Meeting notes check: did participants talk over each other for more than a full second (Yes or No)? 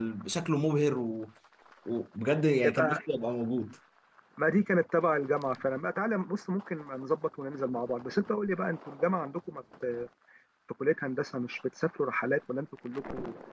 No